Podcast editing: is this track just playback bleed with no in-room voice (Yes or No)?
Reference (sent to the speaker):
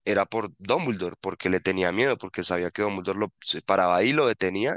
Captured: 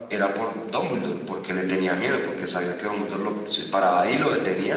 Yes